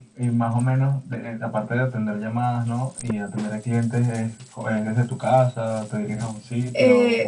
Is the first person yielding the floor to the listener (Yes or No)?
Yes